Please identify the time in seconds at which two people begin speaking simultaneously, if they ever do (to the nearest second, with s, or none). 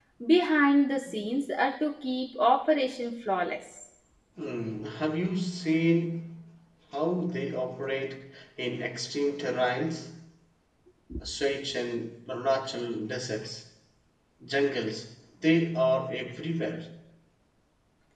none